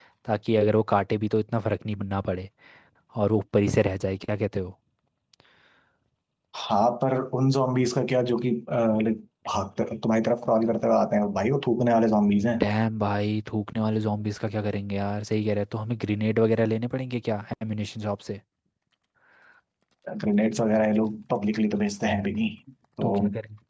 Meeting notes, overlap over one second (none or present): none